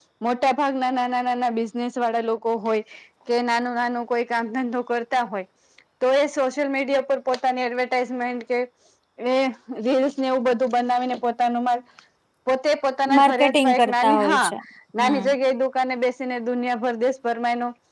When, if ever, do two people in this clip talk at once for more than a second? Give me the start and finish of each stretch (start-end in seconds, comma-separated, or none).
13.2-14.5